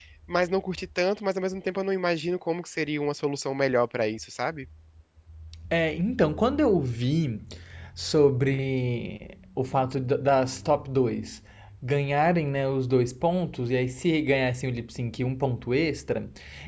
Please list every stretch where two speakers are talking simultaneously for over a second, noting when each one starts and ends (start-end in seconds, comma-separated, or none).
none